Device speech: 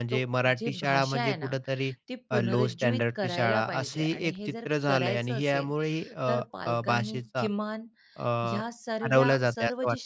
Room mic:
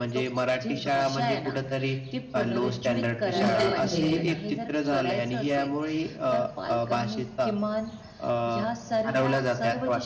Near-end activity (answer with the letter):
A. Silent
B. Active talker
B